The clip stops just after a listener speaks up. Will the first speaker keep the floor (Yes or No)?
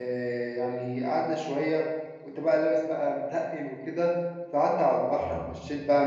Yes